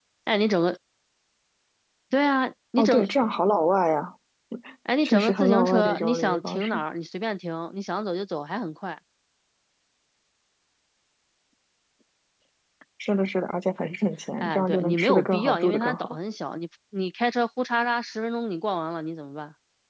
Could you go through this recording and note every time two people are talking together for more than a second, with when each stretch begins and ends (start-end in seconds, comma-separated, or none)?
5.0-6.8, 14.4-16.2